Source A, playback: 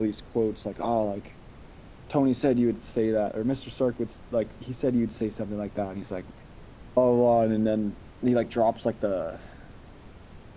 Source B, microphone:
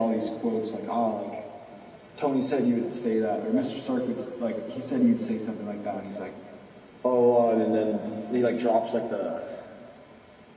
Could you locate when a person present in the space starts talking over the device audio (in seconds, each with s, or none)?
none